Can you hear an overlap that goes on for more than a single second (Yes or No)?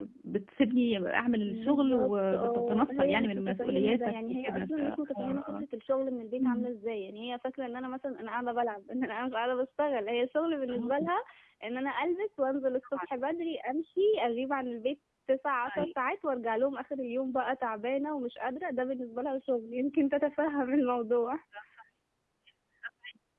Yes